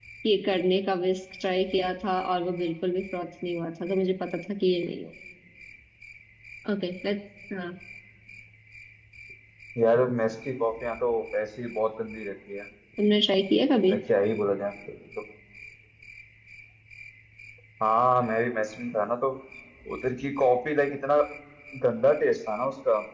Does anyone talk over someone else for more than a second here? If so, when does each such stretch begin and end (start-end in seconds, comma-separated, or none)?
none